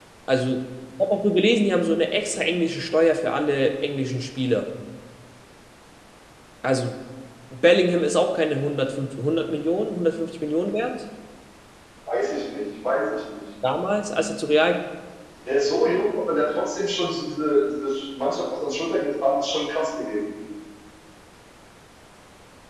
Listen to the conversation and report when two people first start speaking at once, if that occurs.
none

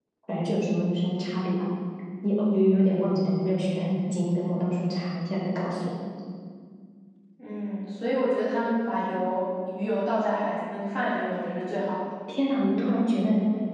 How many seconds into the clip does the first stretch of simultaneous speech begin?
none

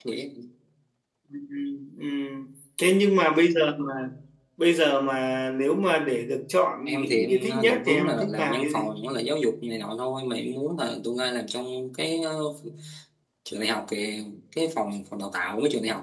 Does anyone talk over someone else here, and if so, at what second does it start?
7 s

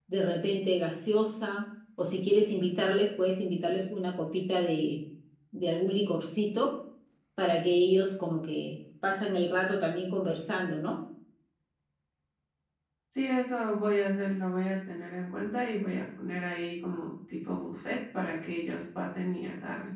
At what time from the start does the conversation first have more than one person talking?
none

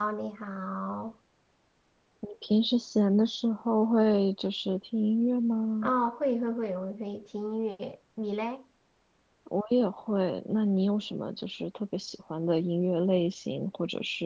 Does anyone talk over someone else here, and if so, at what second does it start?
none

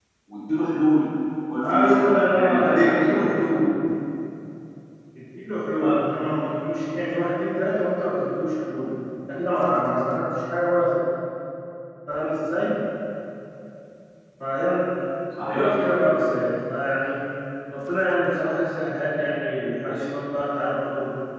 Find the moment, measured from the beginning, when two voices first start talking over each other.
2 s

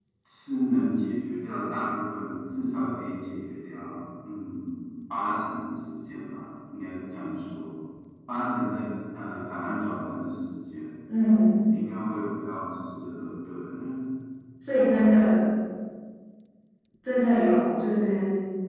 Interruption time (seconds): none

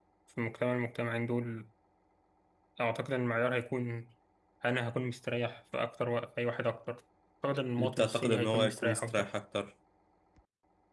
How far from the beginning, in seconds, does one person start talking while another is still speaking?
8 s

